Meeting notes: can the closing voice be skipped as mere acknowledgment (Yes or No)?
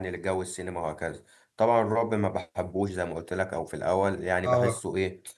Yes